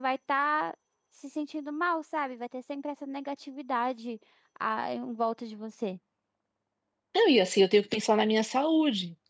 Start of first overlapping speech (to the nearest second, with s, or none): none